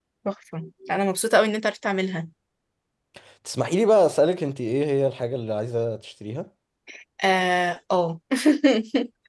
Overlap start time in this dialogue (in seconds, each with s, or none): none